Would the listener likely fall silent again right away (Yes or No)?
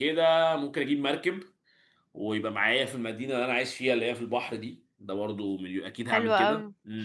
No